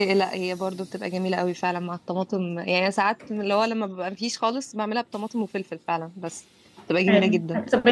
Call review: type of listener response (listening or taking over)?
taking over